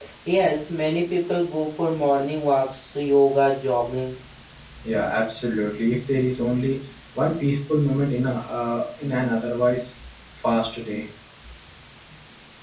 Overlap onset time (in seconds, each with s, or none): none